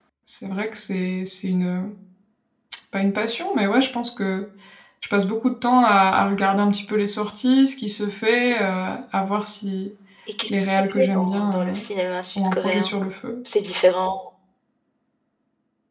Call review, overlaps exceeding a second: present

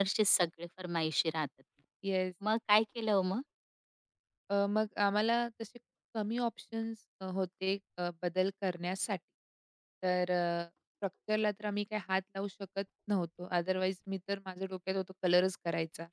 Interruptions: none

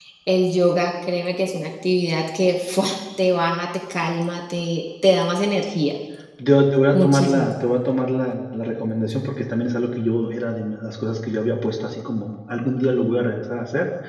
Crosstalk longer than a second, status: none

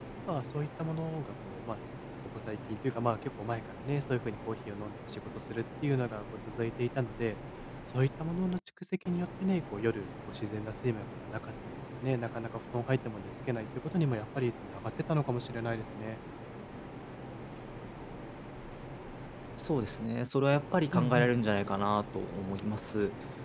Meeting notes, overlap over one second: none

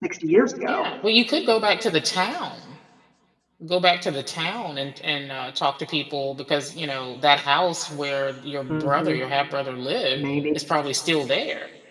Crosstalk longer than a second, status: none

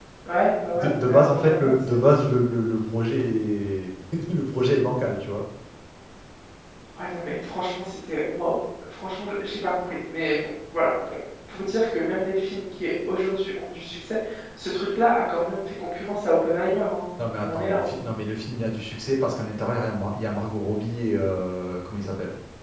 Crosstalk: present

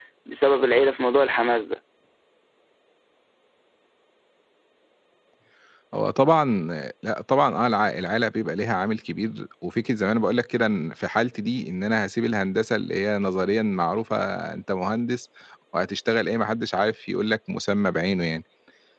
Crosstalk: none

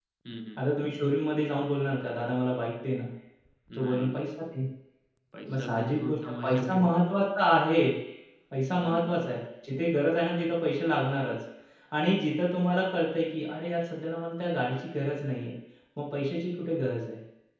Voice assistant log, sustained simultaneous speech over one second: present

